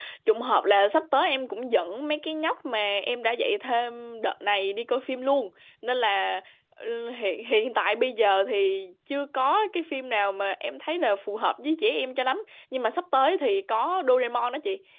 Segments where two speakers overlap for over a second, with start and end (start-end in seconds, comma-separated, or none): none